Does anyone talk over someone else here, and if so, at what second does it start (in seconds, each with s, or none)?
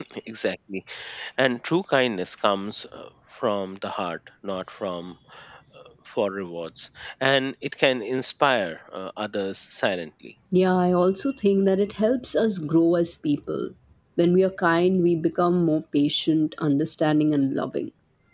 none